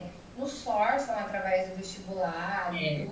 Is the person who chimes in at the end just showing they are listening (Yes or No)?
Yes